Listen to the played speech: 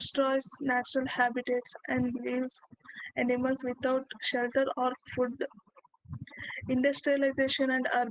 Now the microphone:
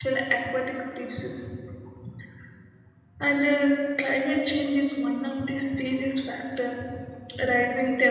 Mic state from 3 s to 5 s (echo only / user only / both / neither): user only